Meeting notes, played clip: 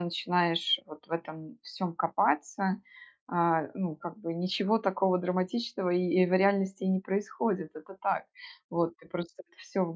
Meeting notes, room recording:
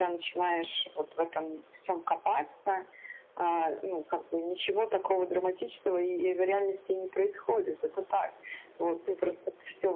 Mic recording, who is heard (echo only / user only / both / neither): both